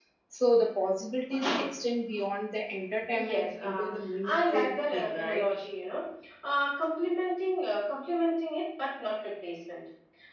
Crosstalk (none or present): present